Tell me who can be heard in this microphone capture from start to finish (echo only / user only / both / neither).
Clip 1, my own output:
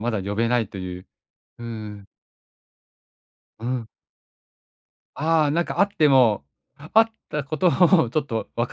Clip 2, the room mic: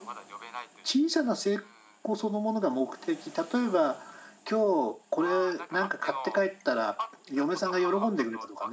both